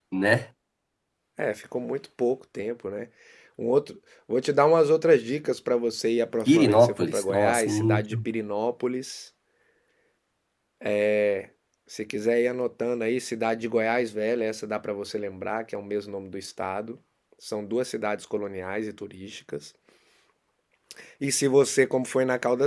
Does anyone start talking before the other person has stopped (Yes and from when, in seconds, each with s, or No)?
Yes, from 6.5 s